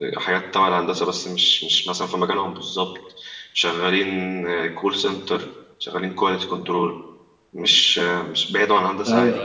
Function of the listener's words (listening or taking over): taking over